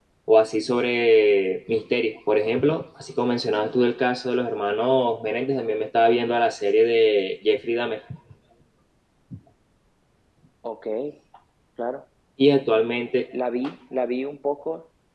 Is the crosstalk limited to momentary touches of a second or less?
Yes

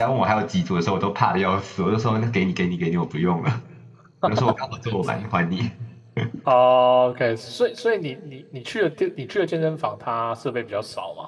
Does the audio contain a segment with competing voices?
No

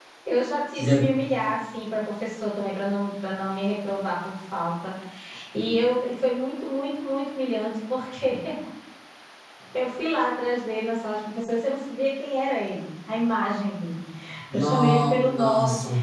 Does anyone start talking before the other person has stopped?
Yes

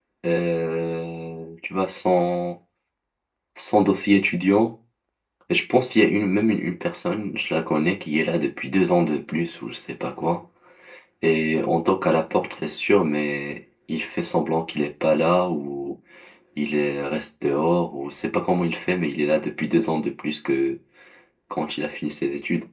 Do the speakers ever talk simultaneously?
No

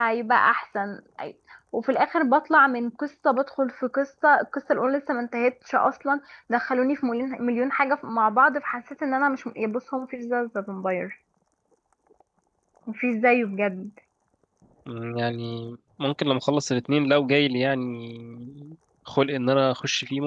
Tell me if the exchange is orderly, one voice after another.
Yes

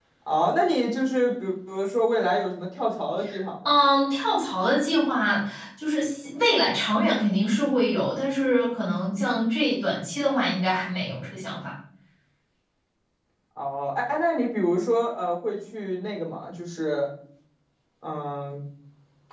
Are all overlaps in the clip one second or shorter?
Yes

